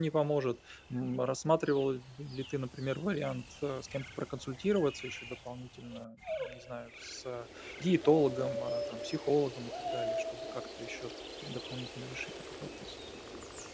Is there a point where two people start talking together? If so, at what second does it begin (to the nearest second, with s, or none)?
none